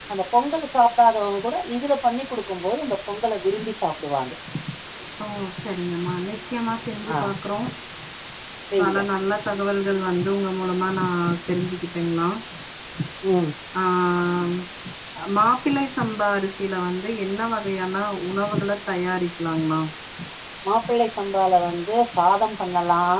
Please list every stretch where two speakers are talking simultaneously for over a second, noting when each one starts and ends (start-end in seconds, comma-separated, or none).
none